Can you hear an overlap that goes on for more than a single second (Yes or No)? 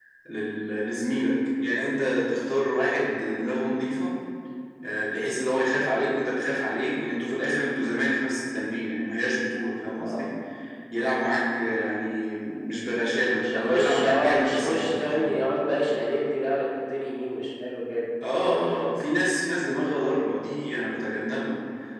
Yes